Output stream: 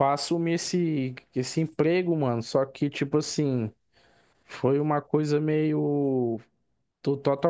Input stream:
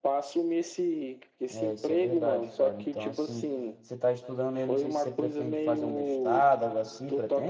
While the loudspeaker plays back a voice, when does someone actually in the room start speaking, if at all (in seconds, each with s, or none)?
1.5 s